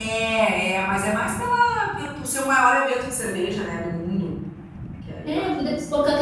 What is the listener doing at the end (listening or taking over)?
taking over